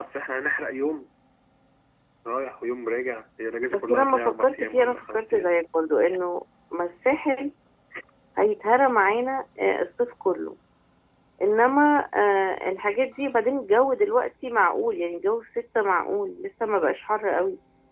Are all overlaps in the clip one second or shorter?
No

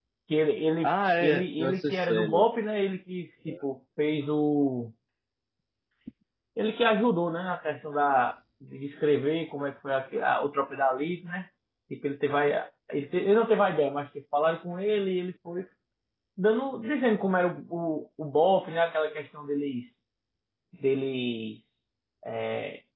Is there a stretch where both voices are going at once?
Yes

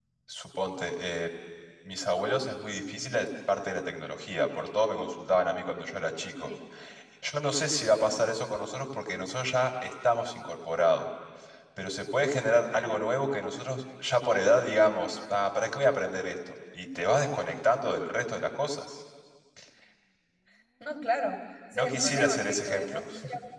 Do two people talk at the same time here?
Yes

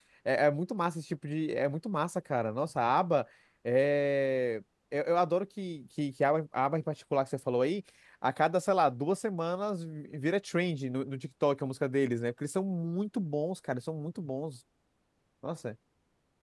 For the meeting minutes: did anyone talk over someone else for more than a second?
No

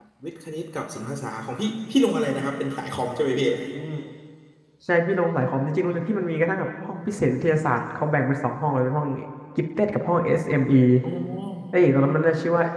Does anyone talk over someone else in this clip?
No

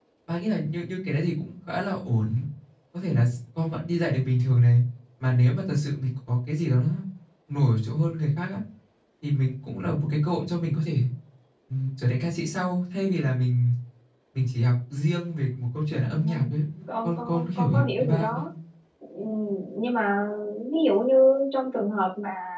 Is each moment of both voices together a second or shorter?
No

